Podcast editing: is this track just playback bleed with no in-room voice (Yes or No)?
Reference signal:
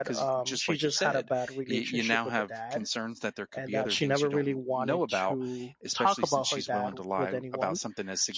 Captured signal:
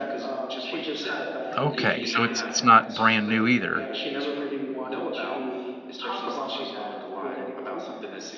No